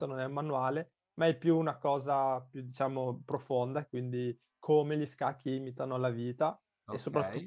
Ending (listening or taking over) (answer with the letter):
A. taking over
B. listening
B